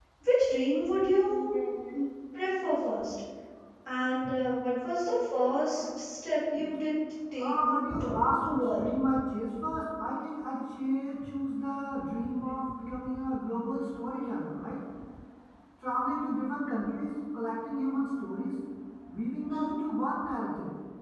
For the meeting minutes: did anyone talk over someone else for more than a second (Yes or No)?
Yes